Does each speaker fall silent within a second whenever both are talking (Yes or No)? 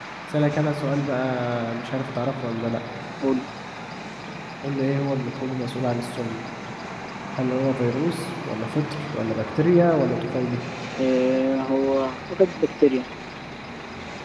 Yes